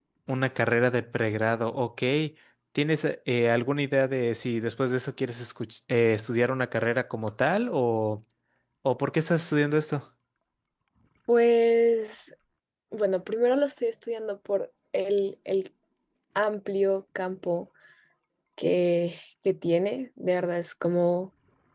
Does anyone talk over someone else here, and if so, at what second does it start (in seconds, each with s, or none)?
none